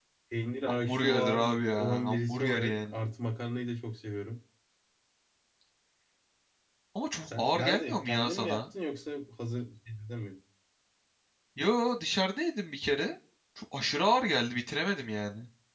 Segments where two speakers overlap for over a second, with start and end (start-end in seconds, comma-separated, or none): 0.7-2.9, 7.3-8.6